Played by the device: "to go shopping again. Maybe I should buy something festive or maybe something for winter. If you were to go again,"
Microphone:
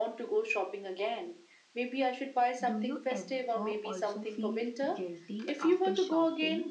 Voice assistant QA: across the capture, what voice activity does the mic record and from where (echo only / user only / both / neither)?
both